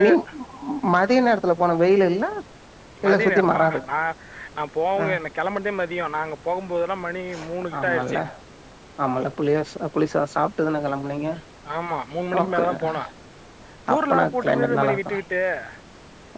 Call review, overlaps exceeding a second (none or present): present